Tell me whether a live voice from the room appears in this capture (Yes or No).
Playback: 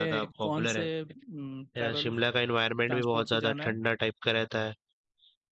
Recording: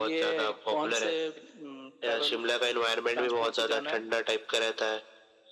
No